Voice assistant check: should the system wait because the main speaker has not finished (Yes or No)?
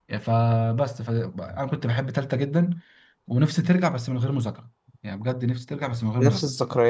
No